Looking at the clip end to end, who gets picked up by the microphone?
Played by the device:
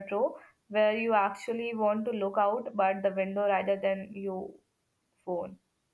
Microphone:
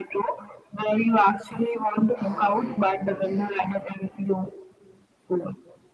both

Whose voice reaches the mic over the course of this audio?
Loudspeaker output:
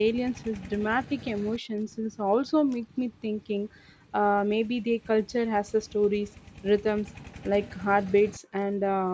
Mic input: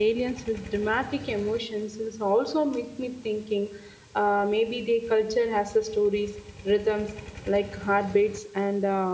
echo only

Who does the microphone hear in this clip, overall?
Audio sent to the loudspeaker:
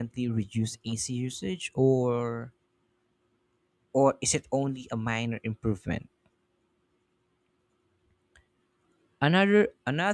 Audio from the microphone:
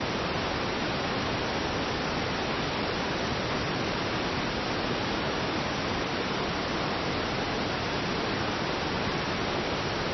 neither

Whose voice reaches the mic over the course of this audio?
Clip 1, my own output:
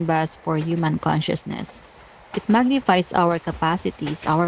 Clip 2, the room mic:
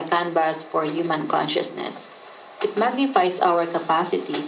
echo only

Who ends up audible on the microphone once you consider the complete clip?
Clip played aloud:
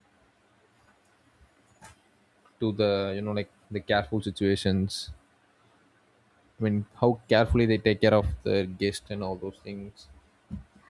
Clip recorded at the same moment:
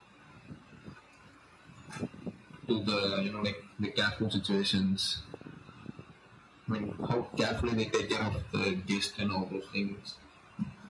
echo only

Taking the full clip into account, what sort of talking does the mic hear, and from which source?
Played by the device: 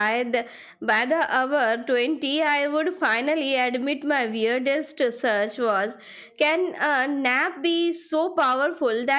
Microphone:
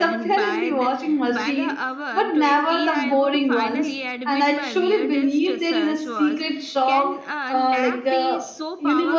both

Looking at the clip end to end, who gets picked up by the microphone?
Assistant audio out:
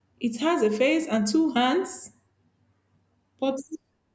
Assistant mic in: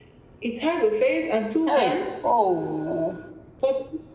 both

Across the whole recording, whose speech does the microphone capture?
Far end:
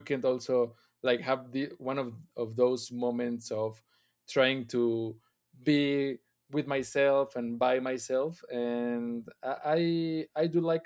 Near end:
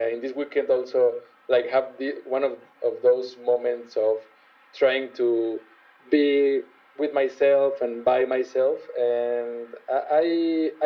echo only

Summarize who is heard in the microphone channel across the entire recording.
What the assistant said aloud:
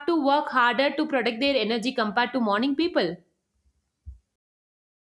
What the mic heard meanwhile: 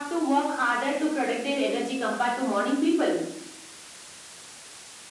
echo only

